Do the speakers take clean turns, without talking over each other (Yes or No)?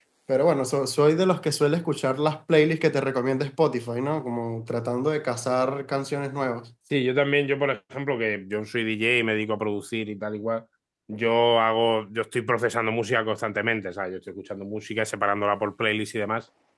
Yes